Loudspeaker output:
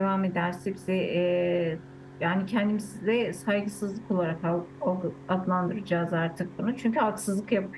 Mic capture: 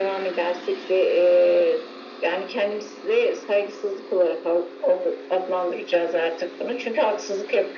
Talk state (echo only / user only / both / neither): echo only